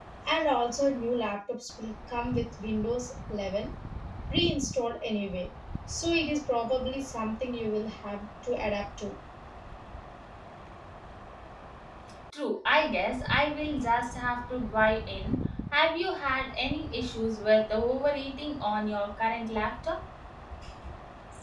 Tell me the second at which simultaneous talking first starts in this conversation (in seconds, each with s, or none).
none